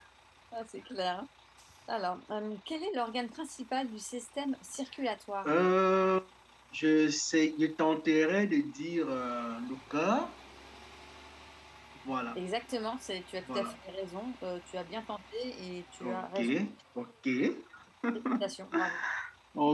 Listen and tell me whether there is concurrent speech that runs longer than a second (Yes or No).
No